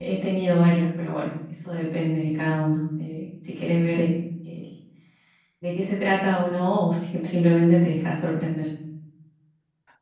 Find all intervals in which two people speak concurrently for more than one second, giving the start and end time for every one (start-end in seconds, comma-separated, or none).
none